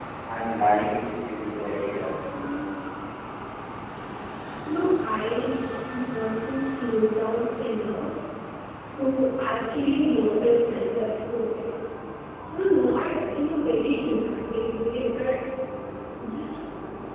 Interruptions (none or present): none